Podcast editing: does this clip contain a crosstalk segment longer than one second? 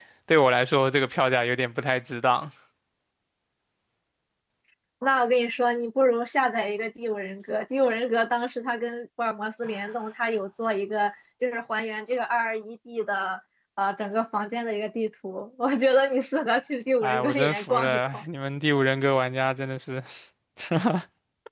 Yes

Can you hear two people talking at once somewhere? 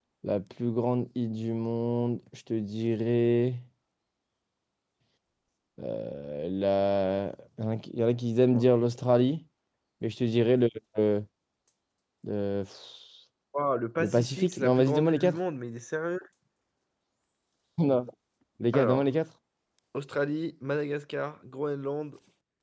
Yes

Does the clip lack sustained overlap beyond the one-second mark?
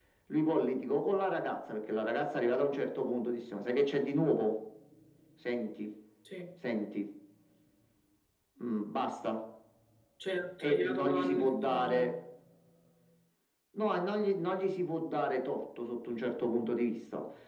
No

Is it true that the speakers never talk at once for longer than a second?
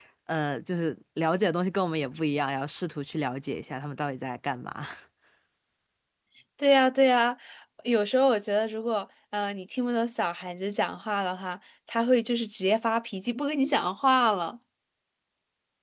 Yes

